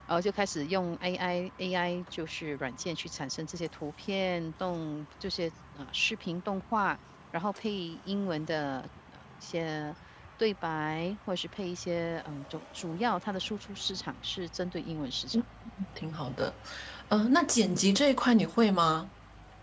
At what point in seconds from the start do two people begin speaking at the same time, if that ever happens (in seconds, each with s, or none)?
none